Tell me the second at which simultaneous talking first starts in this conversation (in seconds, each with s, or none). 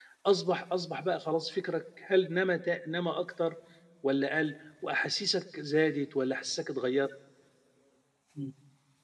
none